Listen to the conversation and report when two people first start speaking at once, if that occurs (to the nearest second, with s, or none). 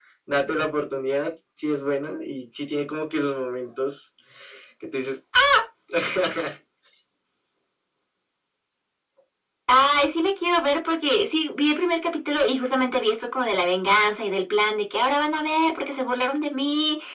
none